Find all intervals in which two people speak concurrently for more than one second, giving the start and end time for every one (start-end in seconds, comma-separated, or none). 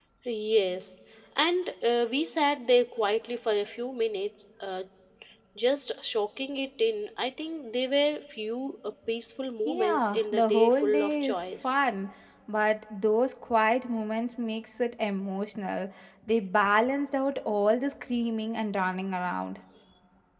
9.7-11.8